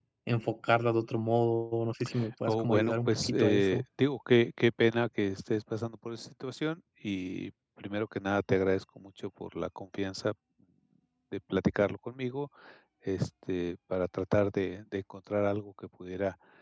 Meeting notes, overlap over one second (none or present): present